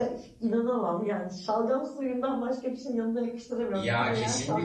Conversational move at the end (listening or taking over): taking over